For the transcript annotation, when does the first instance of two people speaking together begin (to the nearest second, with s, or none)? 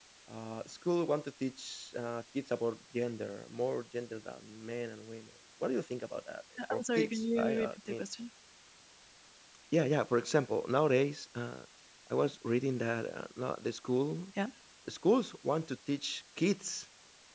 7 s